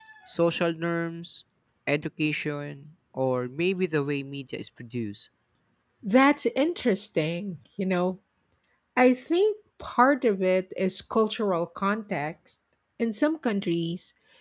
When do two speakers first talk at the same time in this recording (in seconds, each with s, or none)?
none